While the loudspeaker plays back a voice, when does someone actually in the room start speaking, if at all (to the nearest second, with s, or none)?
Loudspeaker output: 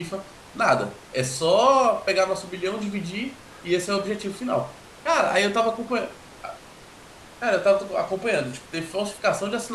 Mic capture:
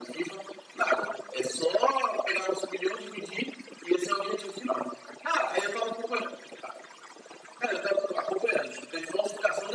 none